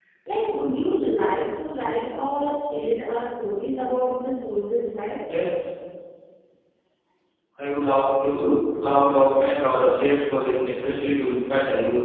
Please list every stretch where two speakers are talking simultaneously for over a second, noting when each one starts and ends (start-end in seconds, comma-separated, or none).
none